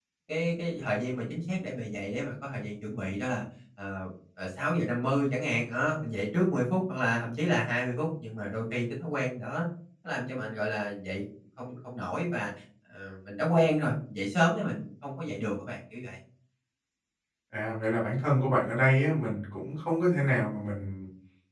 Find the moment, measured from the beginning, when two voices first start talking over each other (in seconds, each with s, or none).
none